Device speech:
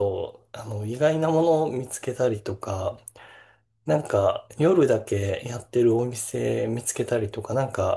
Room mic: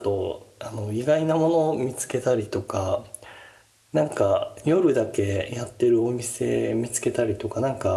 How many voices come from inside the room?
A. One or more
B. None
B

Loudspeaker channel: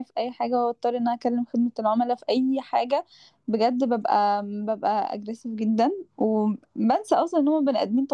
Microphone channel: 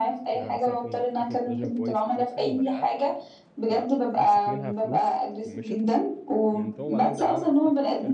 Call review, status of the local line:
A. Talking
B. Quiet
A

